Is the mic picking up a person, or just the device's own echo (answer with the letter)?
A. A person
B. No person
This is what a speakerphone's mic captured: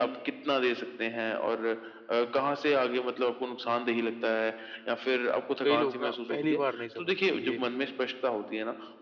A